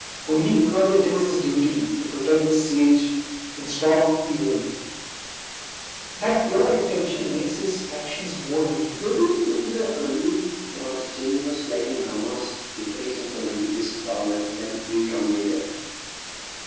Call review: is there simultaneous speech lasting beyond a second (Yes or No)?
No